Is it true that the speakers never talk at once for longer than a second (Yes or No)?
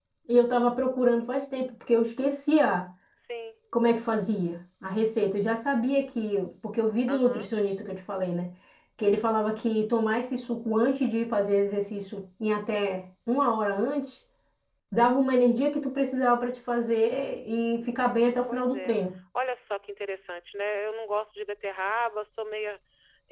Yes